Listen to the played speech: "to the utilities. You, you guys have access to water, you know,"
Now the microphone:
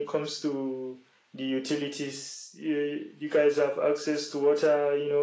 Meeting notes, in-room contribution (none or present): none